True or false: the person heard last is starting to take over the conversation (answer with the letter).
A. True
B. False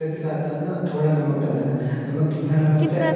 B